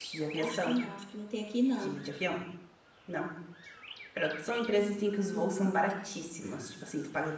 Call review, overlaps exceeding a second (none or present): none